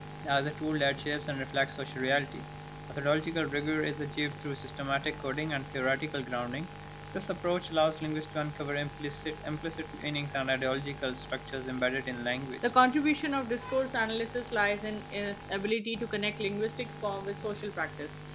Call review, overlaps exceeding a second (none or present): none